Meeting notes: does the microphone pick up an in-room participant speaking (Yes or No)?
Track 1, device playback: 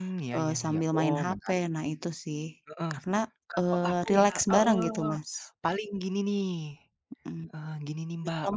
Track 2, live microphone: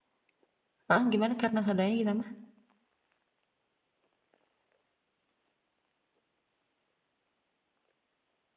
Yes